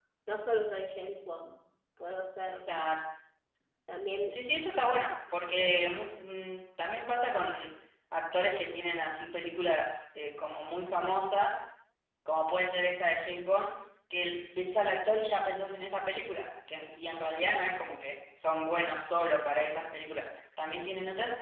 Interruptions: none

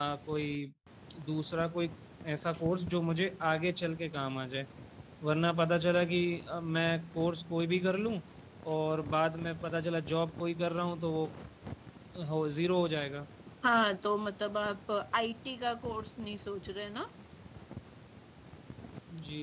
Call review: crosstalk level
none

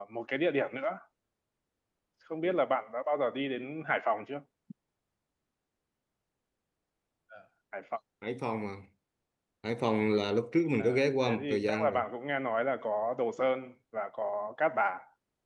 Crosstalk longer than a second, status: present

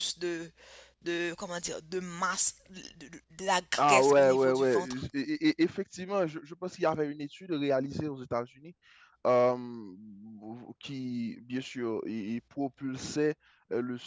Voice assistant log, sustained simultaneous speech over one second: present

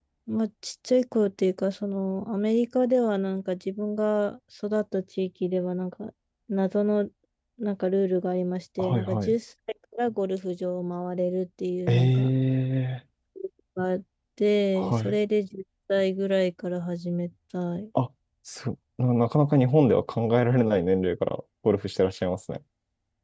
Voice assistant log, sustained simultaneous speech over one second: none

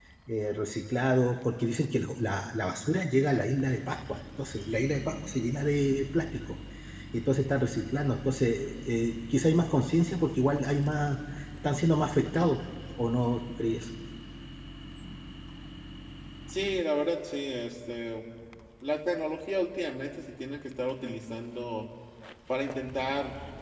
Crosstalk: none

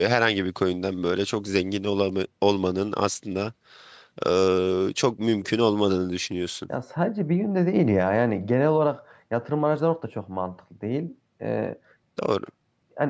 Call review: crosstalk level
none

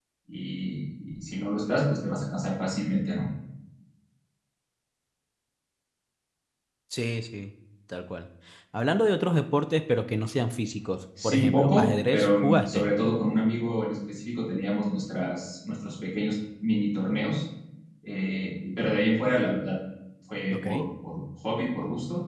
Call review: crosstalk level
present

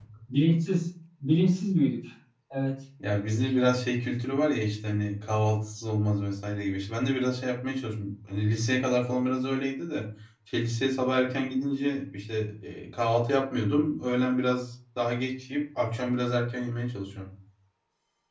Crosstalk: none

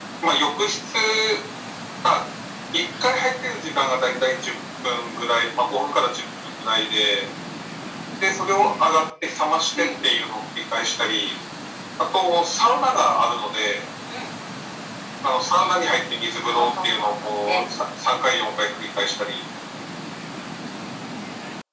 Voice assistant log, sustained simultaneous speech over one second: present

